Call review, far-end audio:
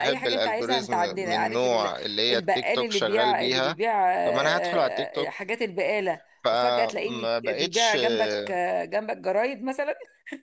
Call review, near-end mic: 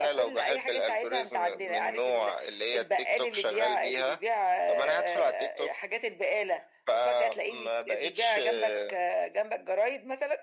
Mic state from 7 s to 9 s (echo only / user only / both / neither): echo only